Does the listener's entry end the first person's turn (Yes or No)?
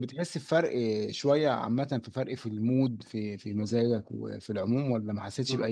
Yes